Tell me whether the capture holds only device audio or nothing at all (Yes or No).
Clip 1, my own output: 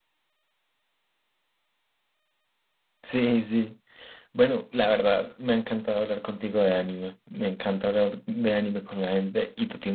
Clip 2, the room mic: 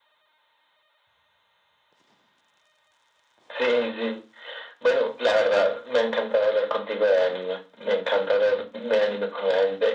Yes